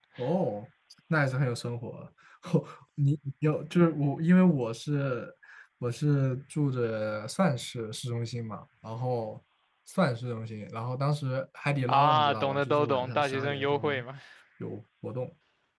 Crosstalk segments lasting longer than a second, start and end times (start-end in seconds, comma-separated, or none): 11.9-14.0